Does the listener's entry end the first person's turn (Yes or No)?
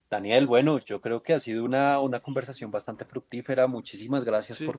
No